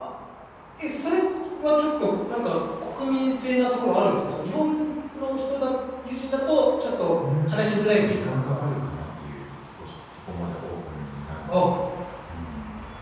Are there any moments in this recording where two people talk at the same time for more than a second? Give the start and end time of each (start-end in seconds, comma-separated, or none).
7.5-8.7